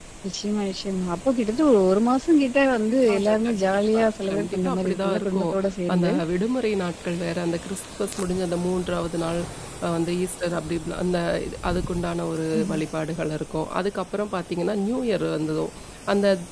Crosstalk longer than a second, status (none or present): present